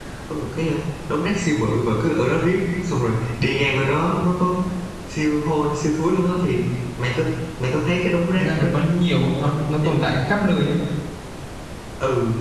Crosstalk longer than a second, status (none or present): none